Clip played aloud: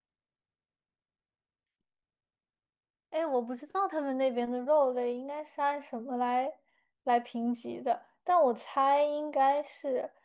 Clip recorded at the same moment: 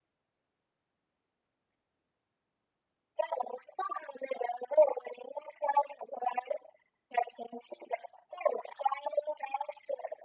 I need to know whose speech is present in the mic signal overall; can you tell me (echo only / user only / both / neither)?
echo only